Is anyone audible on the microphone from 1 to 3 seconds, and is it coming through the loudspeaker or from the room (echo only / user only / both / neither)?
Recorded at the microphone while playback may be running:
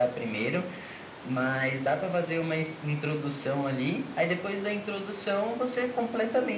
echo only